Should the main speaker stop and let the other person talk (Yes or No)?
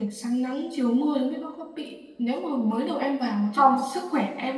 No